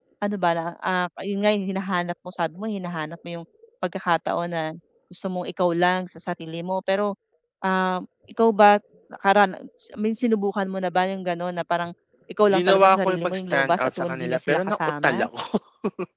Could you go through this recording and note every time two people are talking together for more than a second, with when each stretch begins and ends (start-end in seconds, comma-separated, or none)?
12.5-15.2